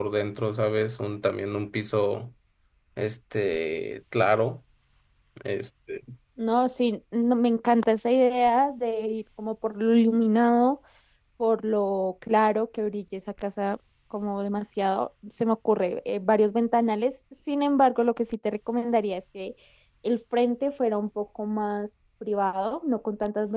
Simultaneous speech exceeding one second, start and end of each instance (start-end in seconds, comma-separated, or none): none